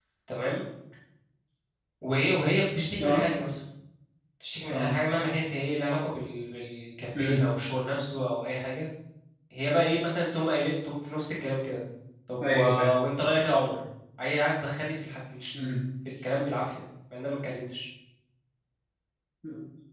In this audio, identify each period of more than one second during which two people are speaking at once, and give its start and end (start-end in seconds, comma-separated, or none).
none